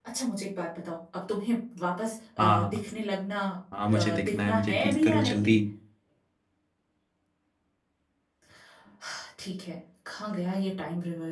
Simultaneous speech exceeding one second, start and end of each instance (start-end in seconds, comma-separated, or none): 4.0-5.6